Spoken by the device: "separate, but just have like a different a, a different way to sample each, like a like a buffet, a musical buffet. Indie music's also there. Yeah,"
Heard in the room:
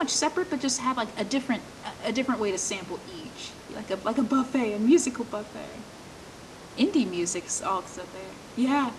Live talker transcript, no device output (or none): none